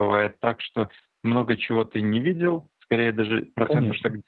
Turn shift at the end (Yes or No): No